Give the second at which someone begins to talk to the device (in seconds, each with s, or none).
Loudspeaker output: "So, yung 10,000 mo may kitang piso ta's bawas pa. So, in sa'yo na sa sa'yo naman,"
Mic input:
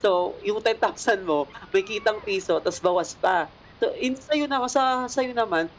none